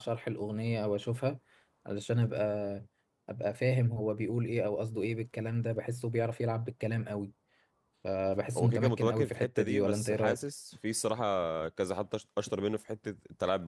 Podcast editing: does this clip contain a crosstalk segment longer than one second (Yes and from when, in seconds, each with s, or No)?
Yes, from 8.6 s